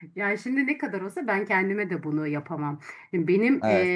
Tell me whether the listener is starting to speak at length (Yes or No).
No